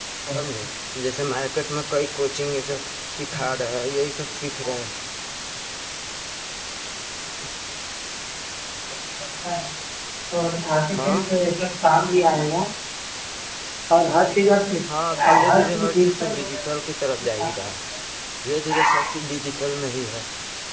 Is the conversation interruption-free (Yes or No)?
No